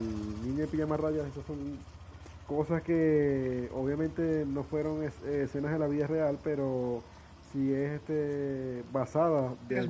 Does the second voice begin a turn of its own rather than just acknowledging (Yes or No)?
No